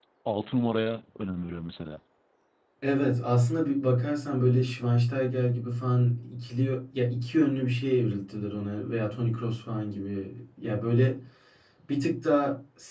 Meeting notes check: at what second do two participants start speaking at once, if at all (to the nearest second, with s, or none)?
none